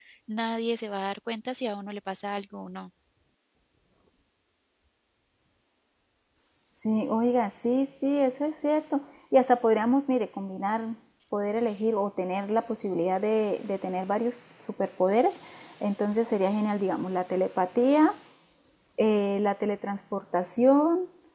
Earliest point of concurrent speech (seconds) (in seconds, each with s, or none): none